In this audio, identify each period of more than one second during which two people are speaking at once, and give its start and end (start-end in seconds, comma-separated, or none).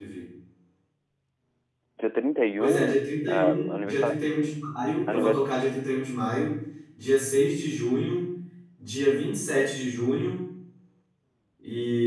2.6-4.2